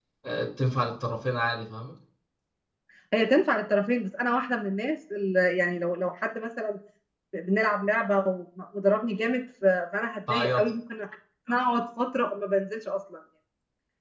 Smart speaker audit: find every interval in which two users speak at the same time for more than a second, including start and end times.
none

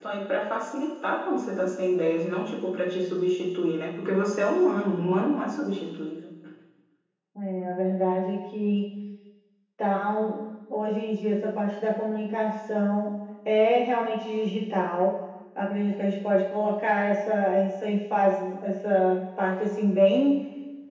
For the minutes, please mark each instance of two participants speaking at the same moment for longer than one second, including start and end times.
none

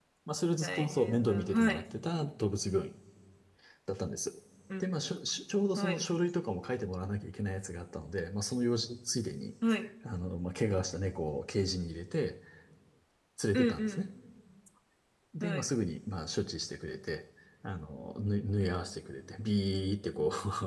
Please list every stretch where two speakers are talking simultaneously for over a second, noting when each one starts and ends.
0.6-1.8

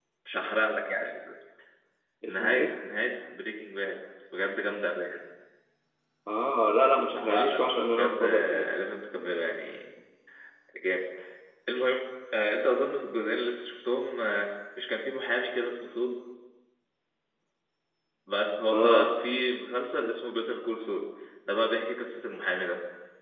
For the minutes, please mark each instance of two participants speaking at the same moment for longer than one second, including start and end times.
7.1-8.7

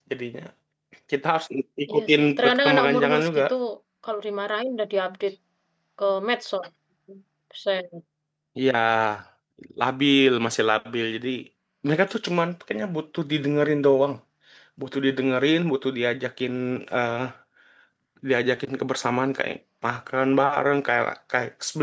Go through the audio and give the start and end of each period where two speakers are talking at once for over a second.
1.9-3.4

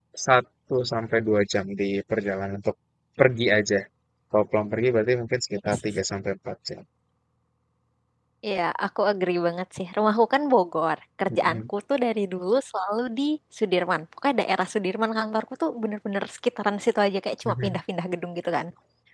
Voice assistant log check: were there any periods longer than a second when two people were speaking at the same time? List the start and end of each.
none

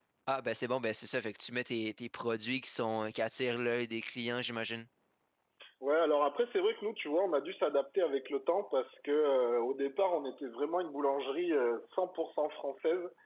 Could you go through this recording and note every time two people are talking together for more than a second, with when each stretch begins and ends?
none

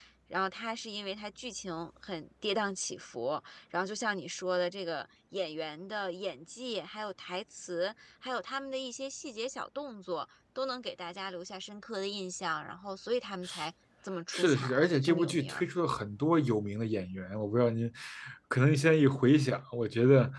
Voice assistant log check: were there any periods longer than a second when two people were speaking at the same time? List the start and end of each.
14.3-15.6

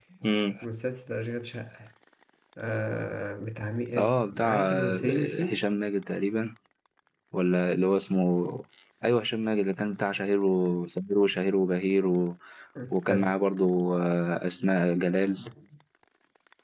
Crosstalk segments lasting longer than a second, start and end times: 4.0-5.6

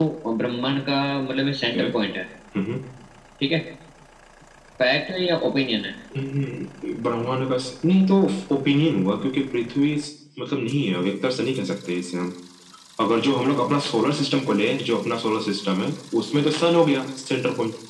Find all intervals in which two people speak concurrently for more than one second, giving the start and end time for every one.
none

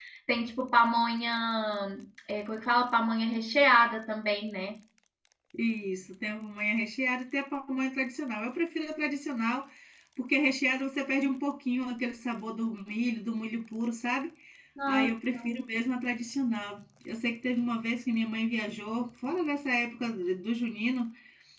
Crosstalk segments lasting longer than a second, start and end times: none

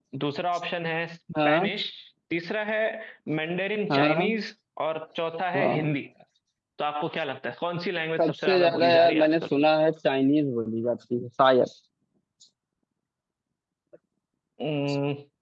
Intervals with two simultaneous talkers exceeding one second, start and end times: 8.2-9.4

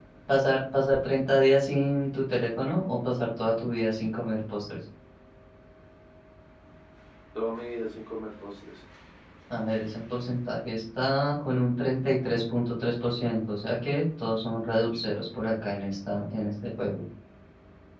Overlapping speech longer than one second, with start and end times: none

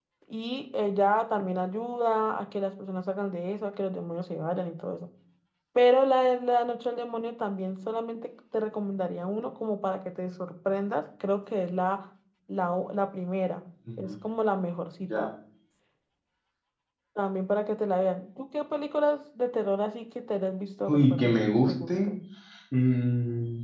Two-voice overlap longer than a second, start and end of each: 20.9-22.1

